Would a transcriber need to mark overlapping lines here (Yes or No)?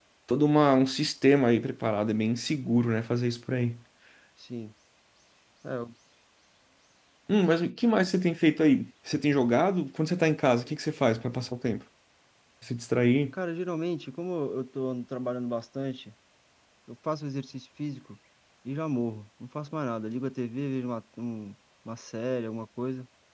No